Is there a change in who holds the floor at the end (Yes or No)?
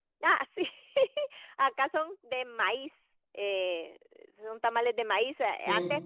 No